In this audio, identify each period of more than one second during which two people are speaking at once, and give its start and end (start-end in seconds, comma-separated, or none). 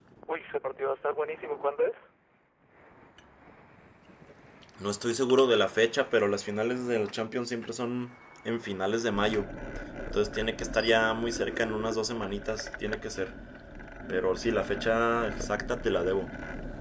none